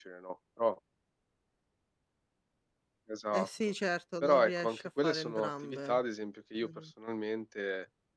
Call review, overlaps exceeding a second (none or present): present